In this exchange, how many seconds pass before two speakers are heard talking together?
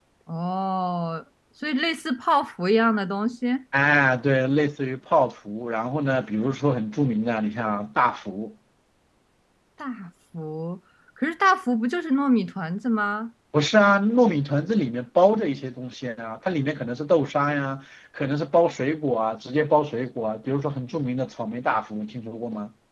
none

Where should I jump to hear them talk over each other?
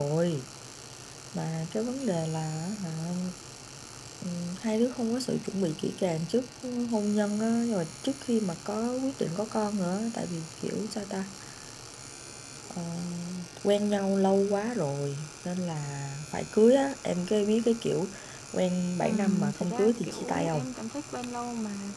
19.0 s

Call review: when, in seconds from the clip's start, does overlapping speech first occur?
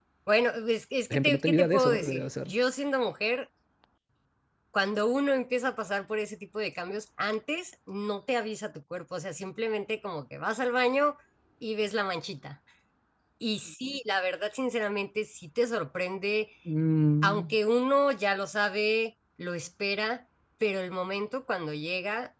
1.1 s

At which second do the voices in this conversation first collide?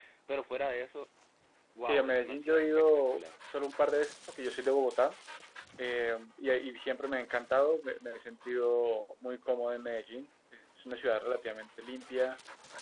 1.9 s

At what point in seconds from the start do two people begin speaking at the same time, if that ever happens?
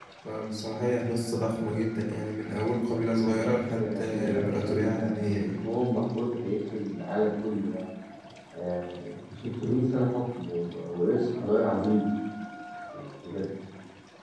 3.2 s

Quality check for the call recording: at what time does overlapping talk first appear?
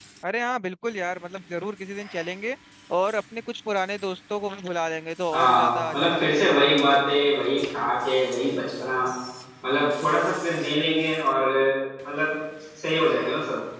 5.3 s

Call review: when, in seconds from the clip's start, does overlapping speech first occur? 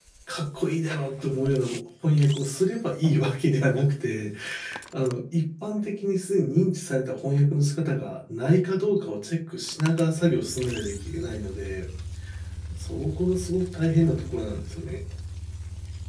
none

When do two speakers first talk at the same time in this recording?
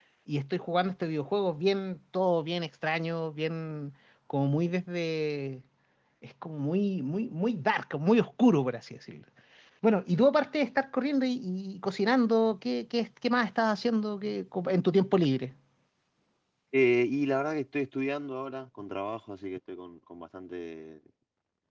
none

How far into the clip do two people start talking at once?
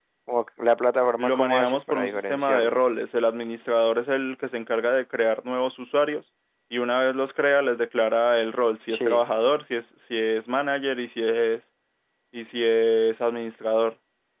1.2 s

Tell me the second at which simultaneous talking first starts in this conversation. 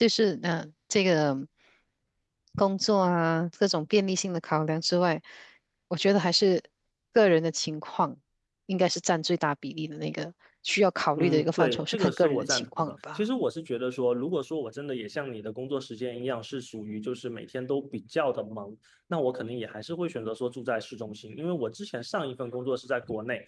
11.2 s

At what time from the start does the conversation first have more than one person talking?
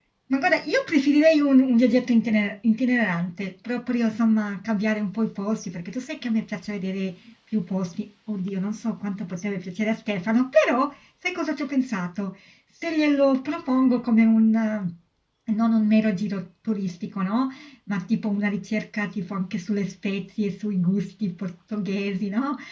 none

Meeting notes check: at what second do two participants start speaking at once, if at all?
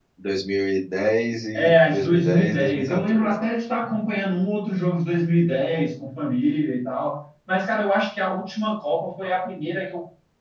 1.5 s

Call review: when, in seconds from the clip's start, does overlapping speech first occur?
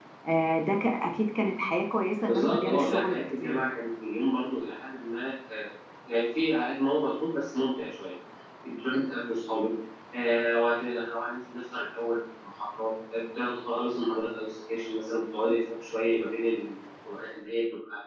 2.3 s

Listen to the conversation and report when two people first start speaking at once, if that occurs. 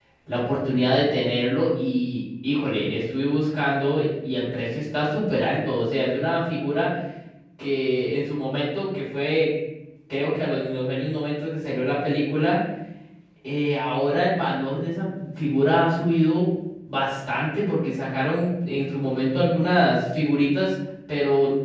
none

